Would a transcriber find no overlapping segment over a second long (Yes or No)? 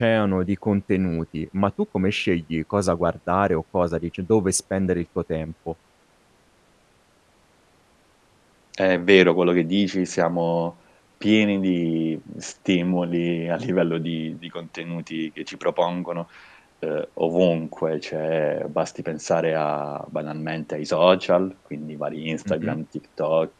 Yes